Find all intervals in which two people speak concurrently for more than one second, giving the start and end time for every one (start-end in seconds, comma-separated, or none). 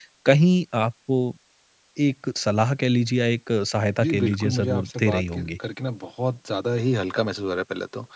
4.0-5.5